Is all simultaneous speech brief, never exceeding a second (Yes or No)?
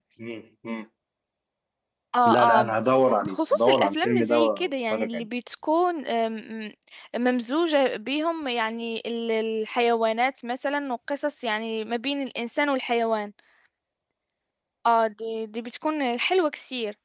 No